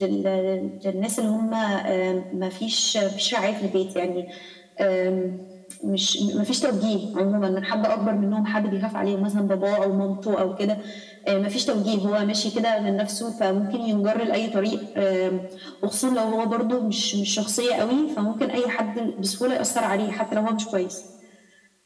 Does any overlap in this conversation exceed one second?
No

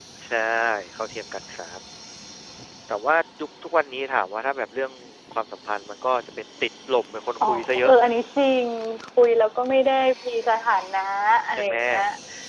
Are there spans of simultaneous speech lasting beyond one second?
No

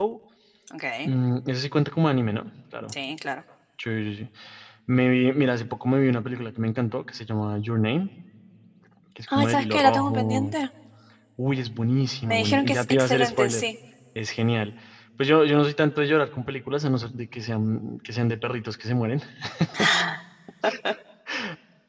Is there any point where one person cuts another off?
Yes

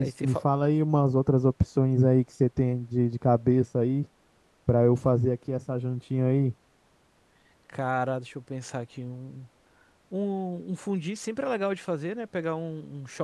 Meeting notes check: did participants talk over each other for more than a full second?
No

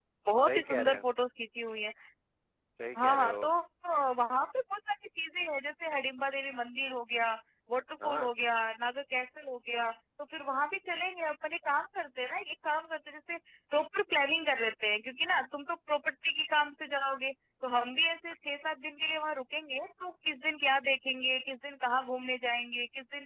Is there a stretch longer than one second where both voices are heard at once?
No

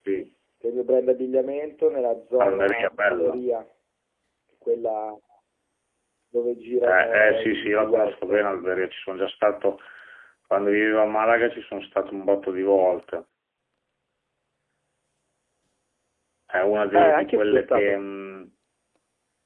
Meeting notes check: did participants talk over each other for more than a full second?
Yes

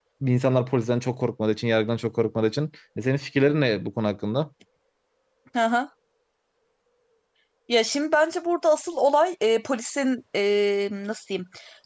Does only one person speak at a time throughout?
Yes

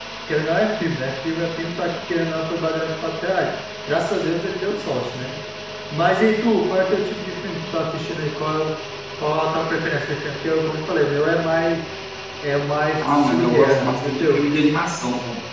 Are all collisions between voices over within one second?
No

